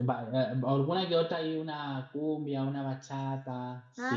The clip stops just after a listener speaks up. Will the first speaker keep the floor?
No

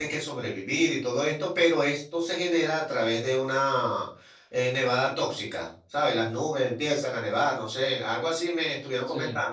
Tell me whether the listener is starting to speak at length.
No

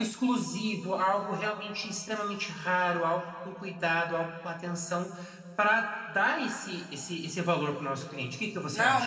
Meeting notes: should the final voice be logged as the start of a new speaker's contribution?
Yes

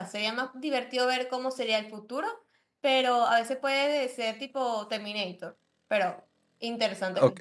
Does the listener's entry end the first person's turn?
Yes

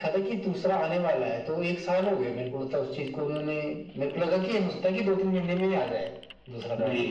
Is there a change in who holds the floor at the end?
Yes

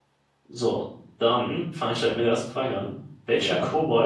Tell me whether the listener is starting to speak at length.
No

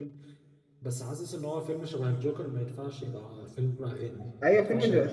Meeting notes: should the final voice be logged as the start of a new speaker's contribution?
Yes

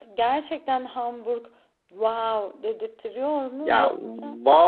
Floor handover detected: Yes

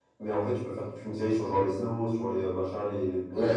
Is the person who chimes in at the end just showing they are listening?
No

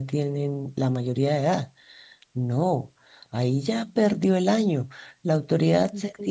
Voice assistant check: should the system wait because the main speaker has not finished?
Yes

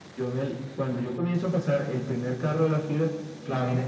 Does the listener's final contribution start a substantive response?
No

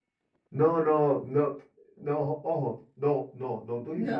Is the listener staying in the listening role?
Yes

